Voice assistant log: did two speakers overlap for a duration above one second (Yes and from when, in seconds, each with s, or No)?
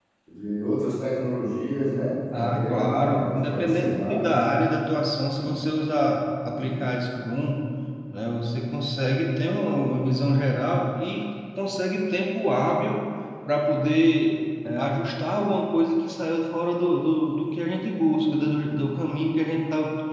Yes, from 2.3 s